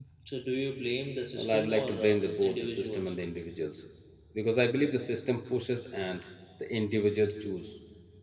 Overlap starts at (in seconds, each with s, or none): 1.4 s